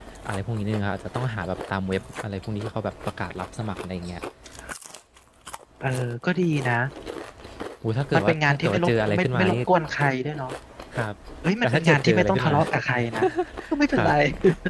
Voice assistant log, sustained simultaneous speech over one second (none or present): present